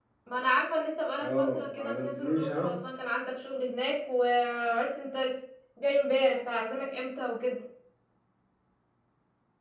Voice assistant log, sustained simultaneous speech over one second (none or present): present